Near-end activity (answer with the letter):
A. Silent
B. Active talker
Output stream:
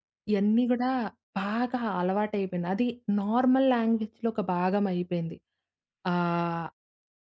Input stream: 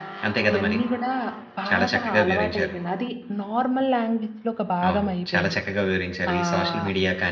B